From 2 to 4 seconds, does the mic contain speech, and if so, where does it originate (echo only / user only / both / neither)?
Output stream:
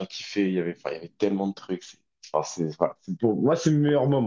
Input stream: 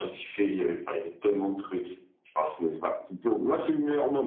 echo only